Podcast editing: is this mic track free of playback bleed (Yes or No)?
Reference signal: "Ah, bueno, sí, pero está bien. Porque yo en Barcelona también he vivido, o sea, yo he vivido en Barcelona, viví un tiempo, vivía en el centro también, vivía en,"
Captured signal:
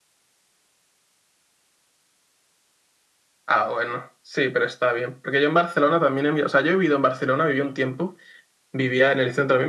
No